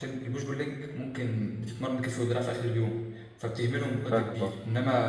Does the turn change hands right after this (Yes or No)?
No